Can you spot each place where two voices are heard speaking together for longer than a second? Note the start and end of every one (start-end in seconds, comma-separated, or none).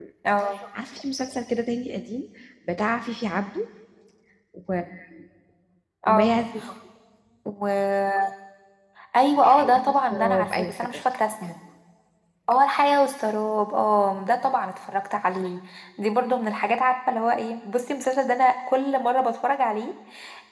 9.4-11.0